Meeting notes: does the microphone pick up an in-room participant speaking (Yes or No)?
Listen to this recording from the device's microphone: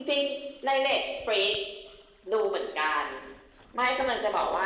Yes